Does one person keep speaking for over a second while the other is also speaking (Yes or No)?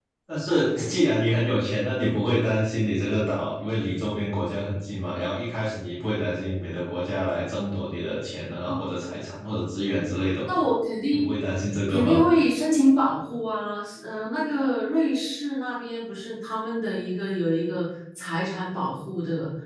No